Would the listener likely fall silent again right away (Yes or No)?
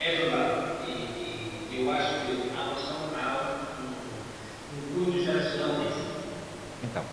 Yes